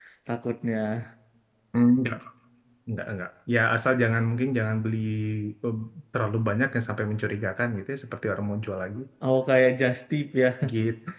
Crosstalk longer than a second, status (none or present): none